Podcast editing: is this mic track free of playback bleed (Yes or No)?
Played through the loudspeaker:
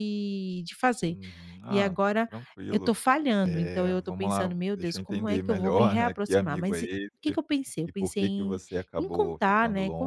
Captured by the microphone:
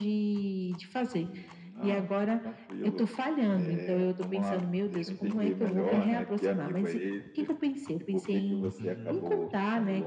No